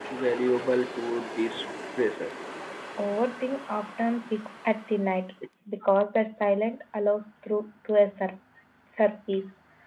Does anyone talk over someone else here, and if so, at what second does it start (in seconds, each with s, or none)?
none